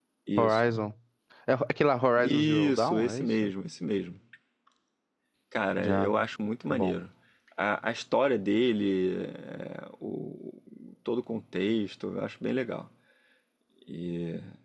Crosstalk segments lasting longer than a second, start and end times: 2.2-3.5

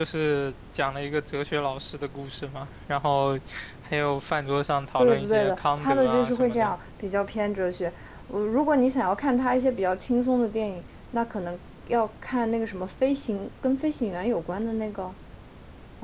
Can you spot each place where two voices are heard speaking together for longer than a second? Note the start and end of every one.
5.0-6.7

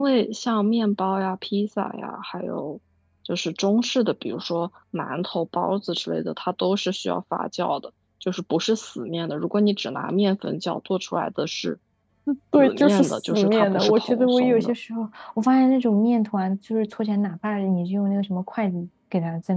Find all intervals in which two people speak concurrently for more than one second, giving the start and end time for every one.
12.6-14.7

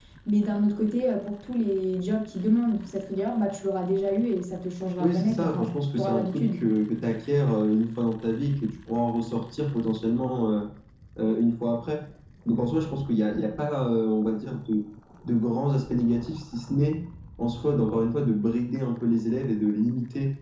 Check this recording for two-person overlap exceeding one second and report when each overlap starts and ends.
5.0-6.6

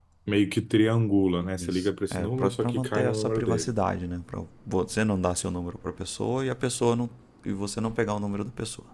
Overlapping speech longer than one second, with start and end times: 1.6-3.7

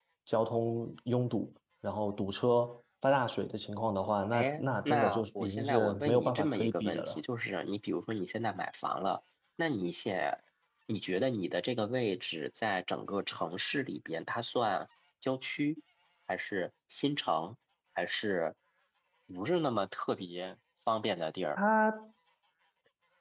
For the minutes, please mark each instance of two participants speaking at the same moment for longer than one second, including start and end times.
4.3-7.2

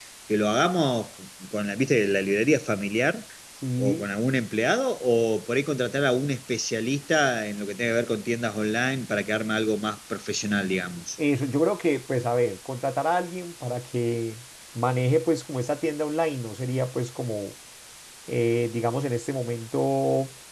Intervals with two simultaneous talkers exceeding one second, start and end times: none

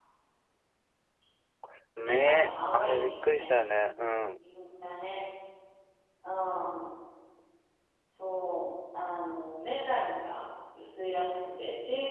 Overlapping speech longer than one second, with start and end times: 2.0-3.5

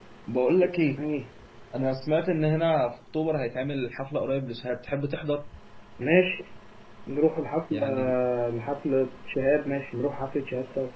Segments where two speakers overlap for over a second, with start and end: none

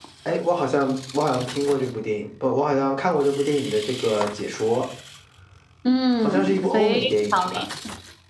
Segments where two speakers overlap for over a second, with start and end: 6.2-7.7

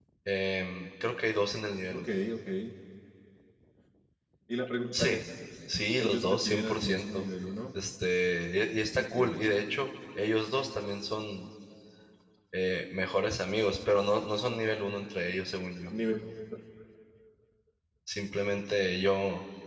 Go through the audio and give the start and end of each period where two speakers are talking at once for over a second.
6.0-7.2

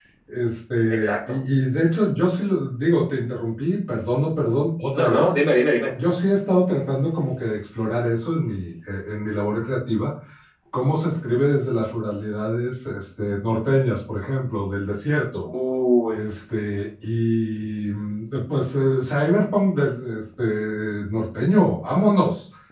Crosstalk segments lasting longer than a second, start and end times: none

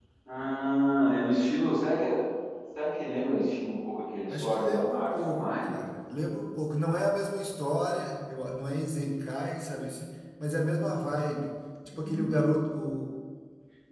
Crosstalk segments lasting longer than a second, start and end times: 4.3-5.8

